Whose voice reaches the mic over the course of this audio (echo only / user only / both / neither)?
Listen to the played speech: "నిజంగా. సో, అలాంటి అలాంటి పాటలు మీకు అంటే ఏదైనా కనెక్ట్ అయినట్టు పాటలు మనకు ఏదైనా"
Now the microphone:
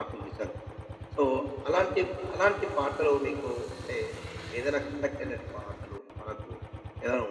echo only